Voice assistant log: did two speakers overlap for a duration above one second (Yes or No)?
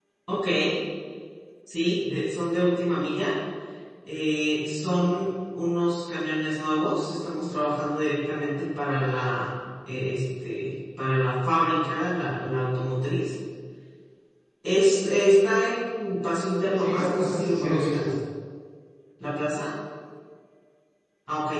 Yes